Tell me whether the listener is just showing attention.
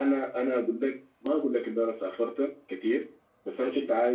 Yes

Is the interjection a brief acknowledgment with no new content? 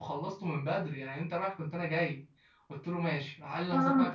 Yes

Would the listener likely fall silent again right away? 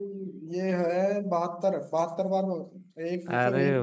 No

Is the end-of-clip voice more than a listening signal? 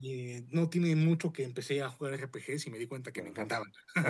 Yes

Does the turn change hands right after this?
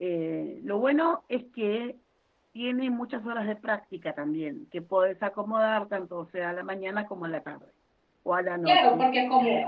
Yes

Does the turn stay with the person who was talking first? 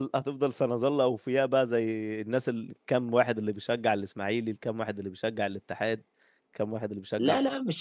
No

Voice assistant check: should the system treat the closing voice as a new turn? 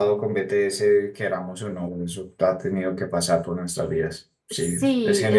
Yes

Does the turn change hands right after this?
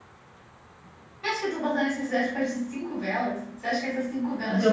Yes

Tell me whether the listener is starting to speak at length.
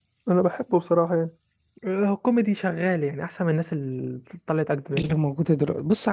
Yes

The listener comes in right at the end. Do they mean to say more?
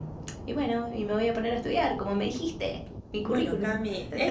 Yes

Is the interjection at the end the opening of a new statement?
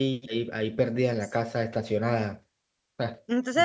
Yes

